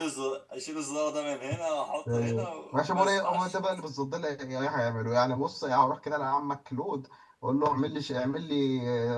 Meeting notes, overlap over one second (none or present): present